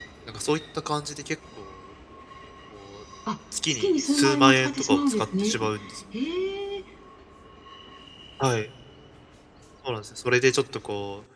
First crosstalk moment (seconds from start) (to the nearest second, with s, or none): 4 s